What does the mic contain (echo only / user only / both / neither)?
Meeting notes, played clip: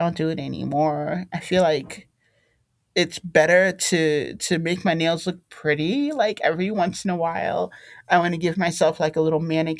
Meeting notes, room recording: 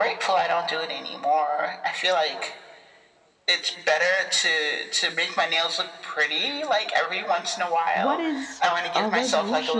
both